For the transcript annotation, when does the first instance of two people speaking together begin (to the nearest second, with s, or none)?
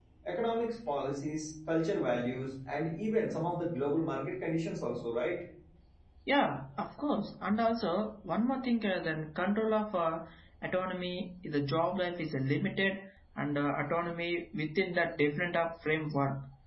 none